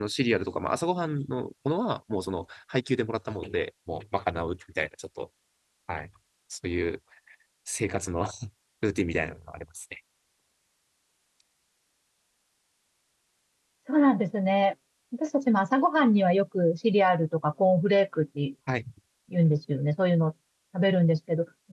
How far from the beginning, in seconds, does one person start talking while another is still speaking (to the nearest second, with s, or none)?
none